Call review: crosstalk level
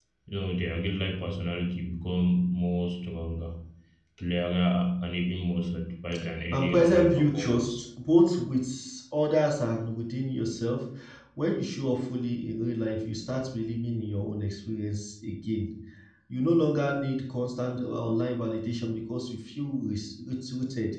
present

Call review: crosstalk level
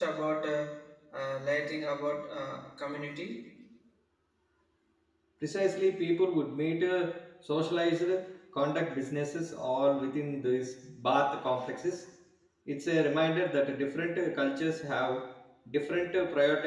none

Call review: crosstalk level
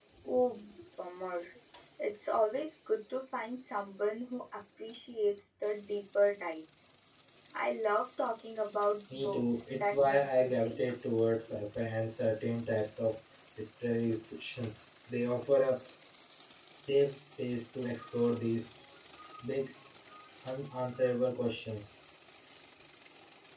present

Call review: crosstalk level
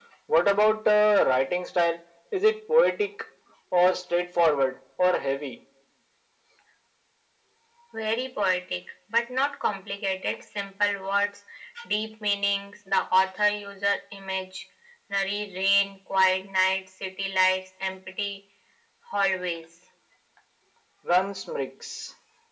none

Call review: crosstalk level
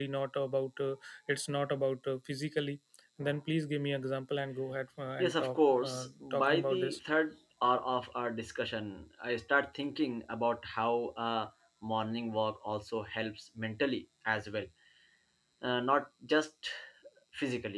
present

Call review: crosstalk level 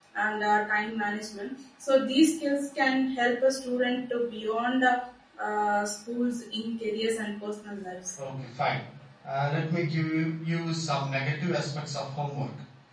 none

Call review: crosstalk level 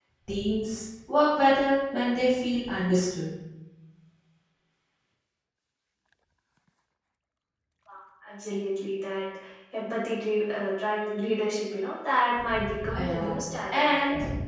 present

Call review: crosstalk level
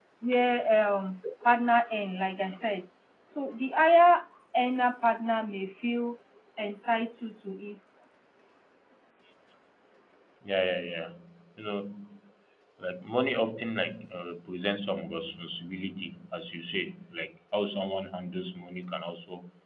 none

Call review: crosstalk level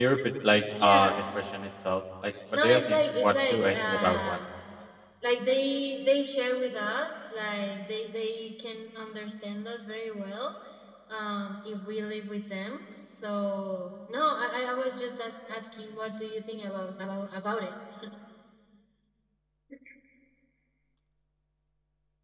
present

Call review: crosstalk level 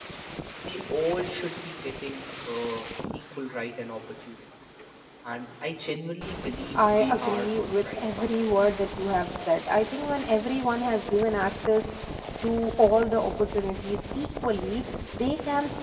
present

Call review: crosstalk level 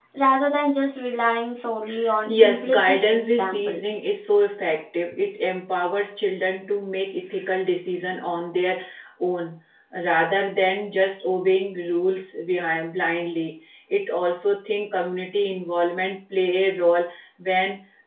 present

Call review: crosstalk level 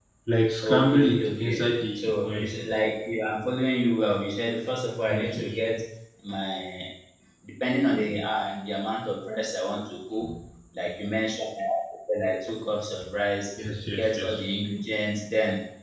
present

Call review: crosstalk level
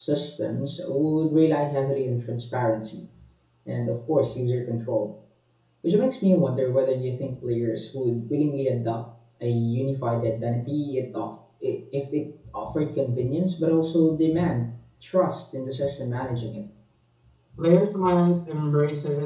none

